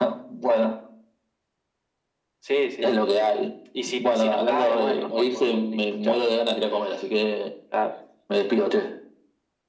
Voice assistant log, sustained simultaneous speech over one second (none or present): present